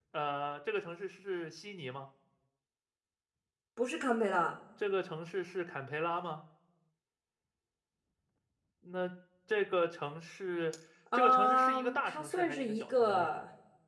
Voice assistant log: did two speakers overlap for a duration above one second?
Yes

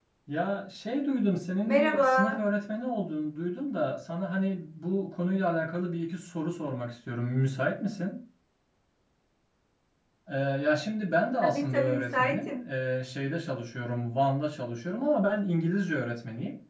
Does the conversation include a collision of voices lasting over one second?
Yes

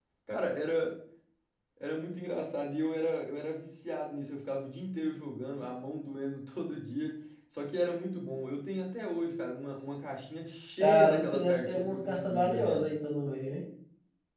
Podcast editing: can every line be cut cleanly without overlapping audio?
No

